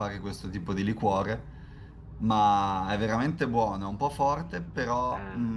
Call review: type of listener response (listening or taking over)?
listening